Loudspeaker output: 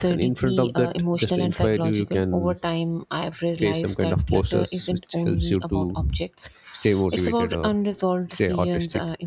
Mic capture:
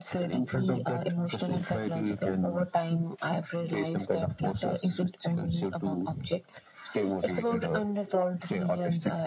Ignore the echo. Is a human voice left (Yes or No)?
No